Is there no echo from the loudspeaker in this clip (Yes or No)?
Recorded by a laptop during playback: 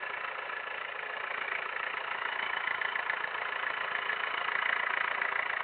Yes